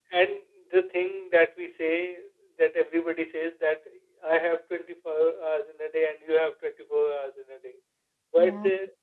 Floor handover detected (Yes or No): No